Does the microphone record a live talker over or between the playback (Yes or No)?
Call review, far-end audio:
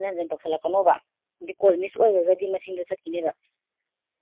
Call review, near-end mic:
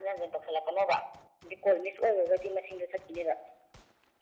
No